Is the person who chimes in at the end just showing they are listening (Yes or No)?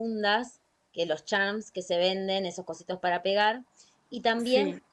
Yes